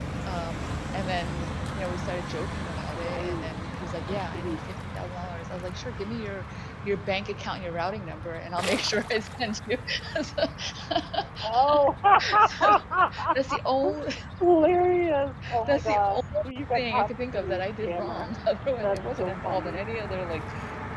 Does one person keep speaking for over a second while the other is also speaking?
Yes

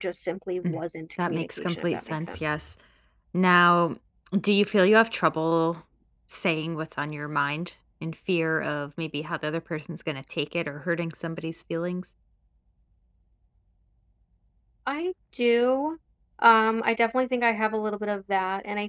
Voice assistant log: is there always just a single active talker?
No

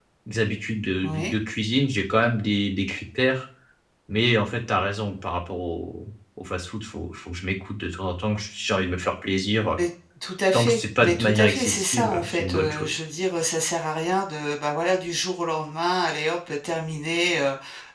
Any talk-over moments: Yes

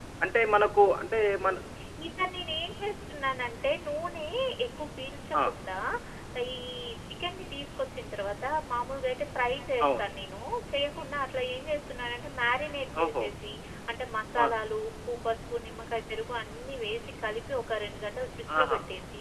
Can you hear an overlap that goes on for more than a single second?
No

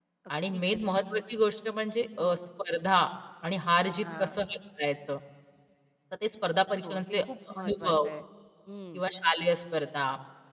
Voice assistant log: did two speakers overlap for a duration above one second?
Yes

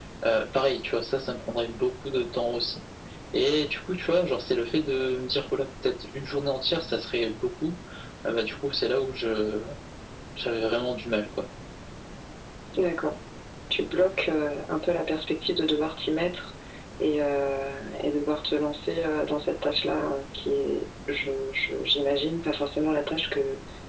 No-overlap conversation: Yes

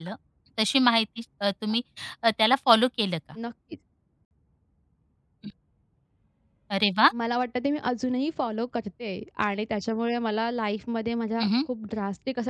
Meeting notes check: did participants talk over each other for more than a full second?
No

